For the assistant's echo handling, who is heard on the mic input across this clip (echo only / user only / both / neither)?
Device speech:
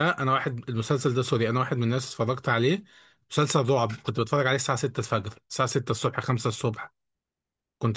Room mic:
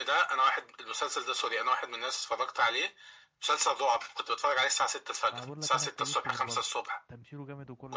both